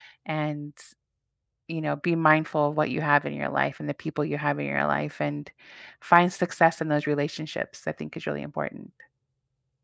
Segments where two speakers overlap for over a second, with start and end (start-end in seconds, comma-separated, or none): none